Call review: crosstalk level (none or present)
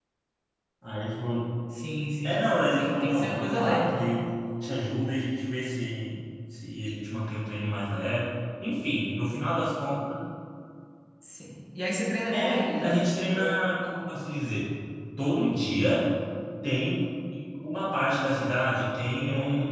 present